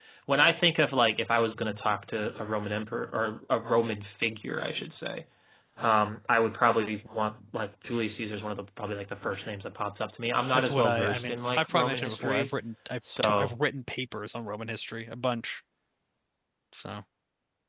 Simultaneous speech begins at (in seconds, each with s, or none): 10.5 s